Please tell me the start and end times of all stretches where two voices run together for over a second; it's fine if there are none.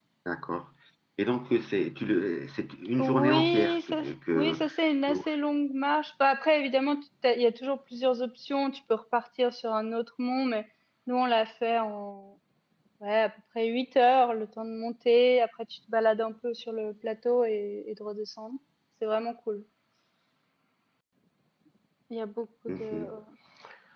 3.0-4.6

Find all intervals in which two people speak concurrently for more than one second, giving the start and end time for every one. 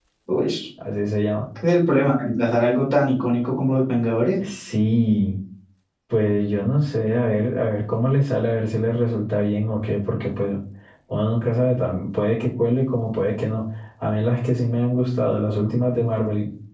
none

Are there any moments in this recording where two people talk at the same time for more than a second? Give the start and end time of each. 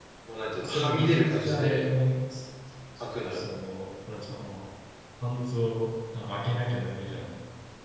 0.6-1.8

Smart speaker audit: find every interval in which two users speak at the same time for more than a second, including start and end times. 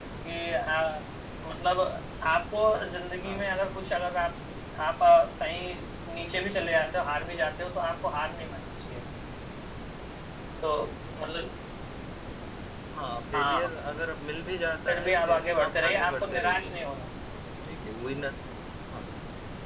14.9-16.7

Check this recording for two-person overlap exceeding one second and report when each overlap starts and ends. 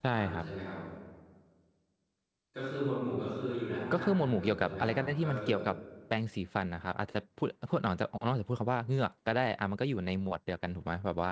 3.9-5.6

